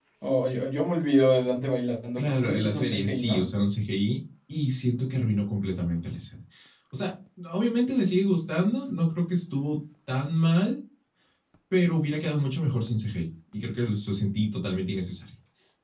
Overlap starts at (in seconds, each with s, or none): 2.2 s